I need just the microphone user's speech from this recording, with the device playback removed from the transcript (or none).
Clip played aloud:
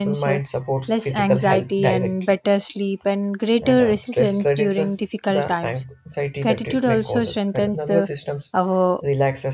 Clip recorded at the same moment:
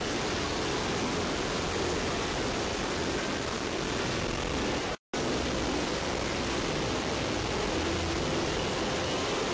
none